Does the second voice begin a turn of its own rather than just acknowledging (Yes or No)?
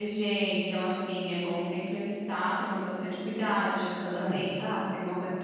No